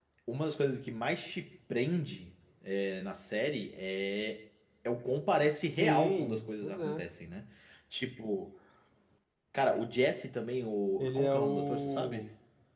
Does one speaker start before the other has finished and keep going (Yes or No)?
Yes